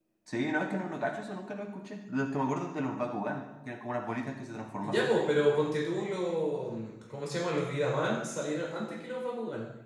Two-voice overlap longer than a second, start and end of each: none

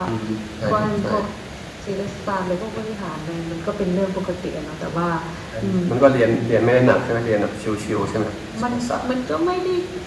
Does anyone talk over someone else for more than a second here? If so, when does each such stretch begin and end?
none

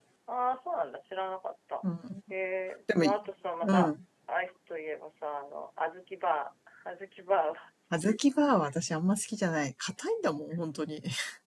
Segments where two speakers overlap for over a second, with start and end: none

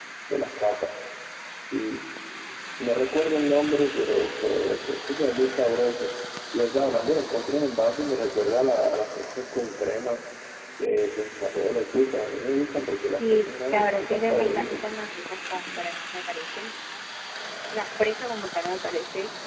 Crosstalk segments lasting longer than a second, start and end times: 13.2-14.8

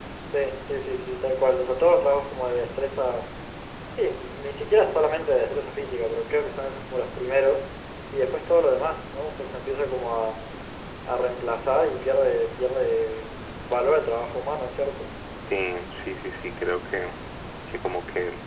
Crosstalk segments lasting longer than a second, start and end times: none

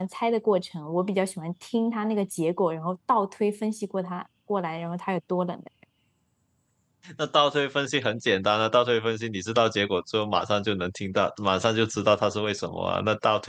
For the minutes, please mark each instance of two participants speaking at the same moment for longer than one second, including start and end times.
none

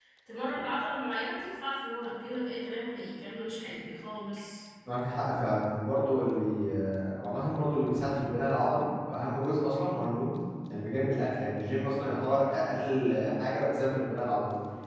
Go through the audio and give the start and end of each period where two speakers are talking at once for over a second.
none

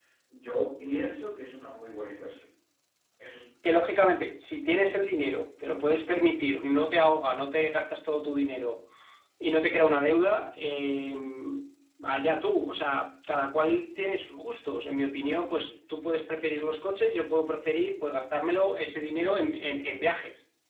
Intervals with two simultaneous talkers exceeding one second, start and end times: none

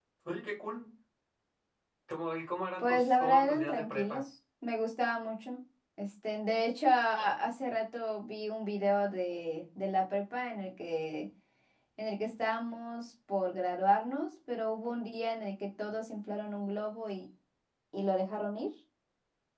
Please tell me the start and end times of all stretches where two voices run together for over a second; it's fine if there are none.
2.8-4.2

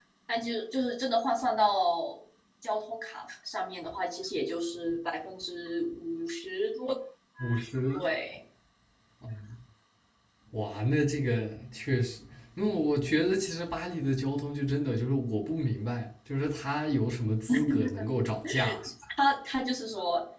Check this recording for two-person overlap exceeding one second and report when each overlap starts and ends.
none

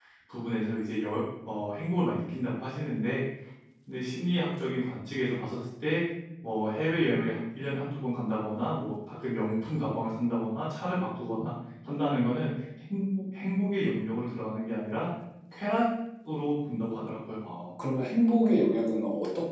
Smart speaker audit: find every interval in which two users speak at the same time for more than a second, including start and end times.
none

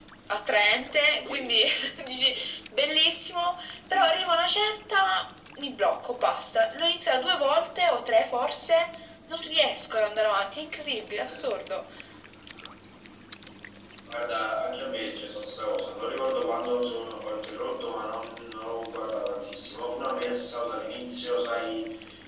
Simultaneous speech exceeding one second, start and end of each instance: none

